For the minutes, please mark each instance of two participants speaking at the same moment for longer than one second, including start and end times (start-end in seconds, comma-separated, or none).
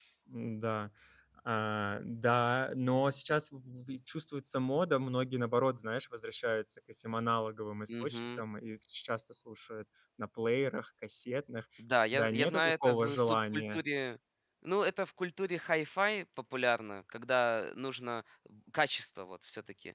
12.1-13.8